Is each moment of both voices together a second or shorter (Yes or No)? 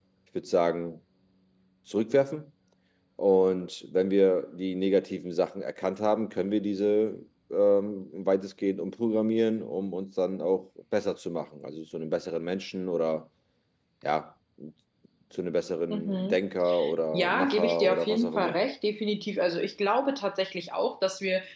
No